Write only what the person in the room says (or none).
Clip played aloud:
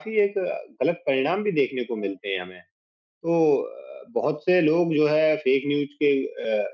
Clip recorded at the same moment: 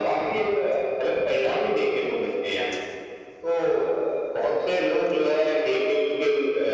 none